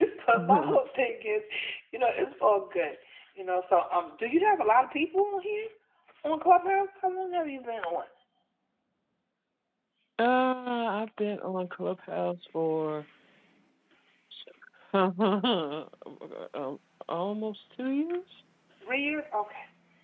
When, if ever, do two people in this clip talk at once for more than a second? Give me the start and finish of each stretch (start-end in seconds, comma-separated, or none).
none